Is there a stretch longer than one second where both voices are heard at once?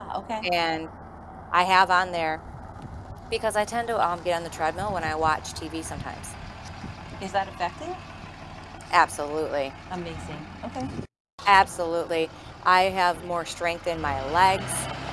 No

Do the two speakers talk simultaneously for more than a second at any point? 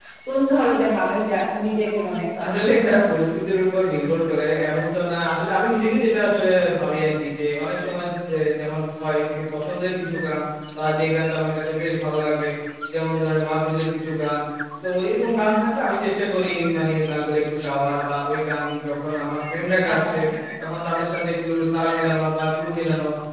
No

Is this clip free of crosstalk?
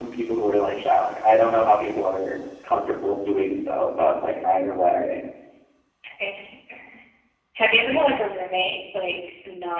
Yes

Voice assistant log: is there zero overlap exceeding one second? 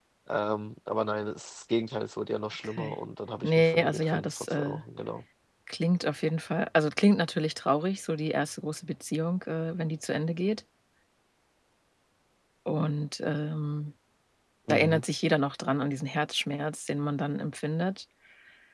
No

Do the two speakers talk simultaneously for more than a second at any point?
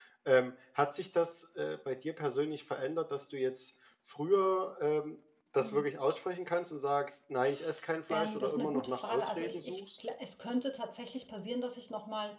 Yes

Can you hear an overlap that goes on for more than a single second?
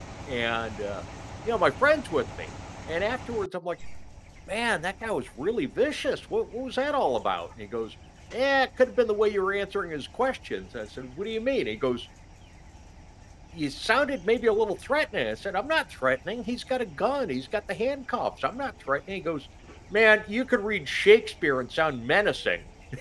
No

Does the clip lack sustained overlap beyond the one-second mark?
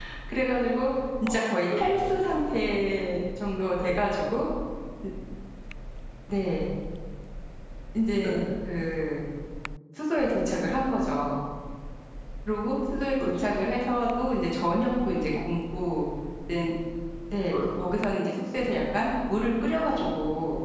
No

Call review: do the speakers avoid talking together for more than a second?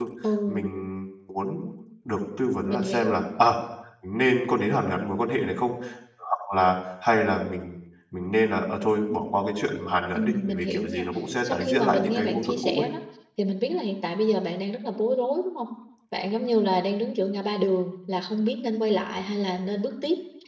No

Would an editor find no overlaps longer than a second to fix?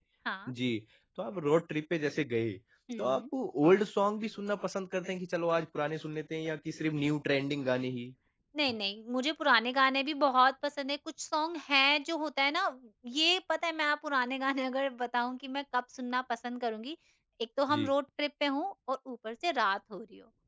Yes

